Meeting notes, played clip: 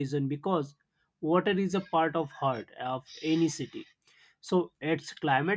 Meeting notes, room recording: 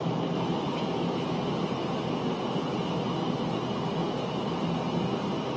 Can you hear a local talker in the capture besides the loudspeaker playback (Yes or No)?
No